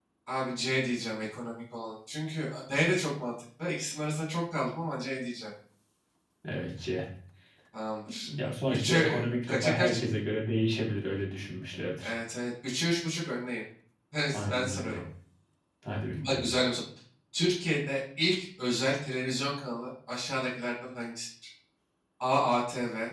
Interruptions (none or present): present